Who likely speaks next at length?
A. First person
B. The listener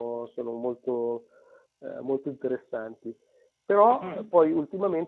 A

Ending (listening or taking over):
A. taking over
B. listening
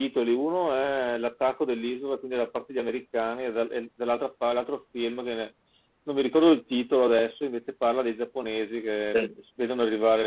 B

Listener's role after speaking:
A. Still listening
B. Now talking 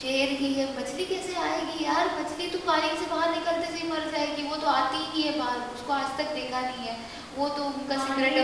B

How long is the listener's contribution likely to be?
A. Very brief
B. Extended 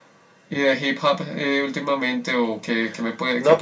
B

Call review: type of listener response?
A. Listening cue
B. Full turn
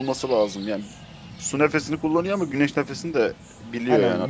B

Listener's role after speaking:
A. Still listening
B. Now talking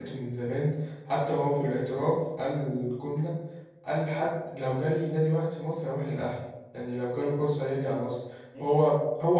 A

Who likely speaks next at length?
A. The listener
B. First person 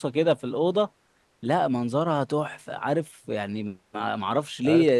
A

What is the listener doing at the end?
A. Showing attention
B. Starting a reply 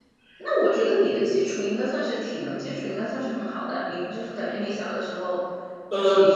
B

